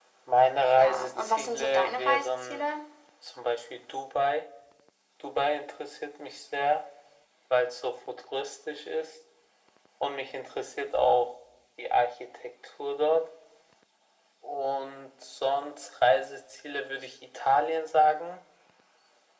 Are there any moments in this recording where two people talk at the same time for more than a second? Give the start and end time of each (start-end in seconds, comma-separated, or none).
0.8-2.7